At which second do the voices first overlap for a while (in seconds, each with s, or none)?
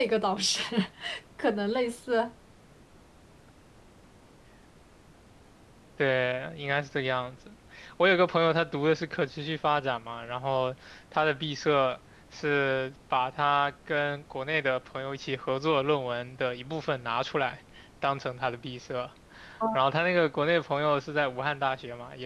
none